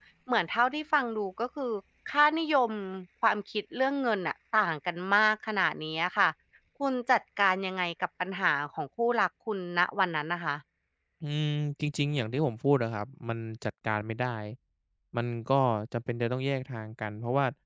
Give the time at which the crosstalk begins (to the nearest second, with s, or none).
none